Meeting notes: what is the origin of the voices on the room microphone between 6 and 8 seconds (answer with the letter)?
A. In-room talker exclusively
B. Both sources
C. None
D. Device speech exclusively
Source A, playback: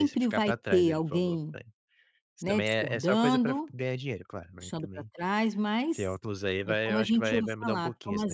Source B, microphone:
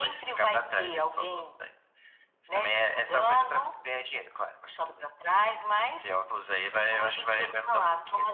D